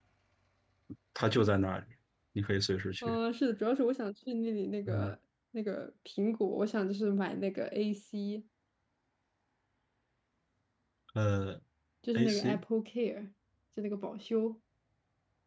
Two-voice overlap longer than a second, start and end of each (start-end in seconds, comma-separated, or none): none